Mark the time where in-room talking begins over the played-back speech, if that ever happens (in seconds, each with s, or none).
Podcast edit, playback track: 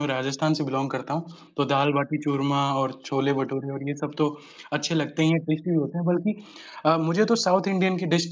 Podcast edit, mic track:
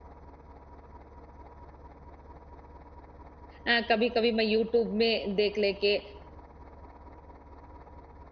3.6 s